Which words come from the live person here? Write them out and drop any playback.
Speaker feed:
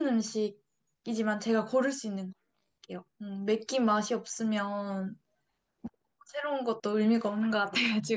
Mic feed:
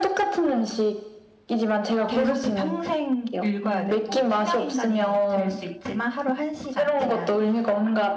계속 그 평생 읽어야 되고, 투명인간이 될 수 있지만 하루 한시간 제한이 있어요.

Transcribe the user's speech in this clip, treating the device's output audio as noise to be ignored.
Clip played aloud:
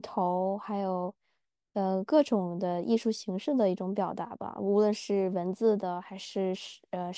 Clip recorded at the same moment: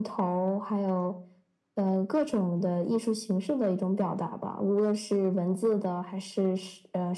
none

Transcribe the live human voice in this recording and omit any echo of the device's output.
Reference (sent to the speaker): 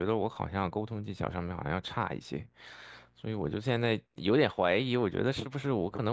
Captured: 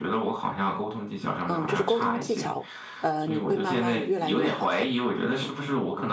嗯，就是沟通技巧，呃，你会慢慢越来越好的。

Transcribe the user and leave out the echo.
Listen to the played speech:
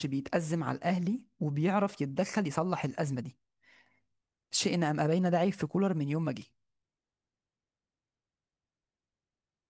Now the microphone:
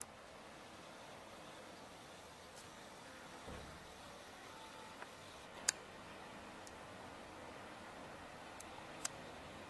none

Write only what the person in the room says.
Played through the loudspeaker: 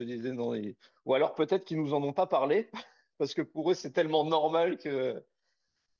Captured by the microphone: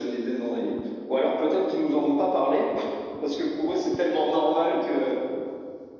none

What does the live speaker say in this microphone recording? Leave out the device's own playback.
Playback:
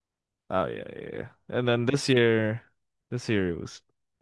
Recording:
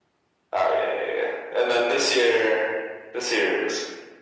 none

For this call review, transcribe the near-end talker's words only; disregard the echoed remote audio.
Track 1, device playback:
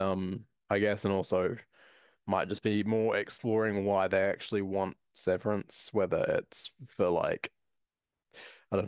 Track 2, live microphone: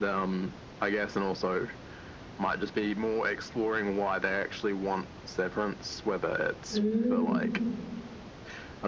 Mm,

